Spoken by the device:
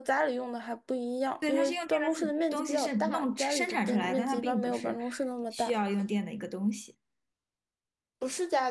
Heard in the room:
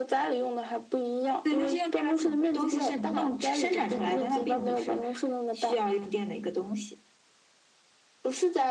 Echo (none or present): present